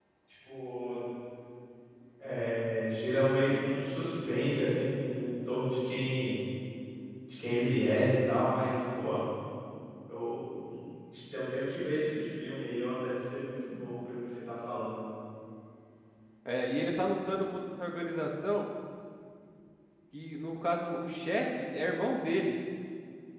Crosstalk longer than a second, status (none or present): none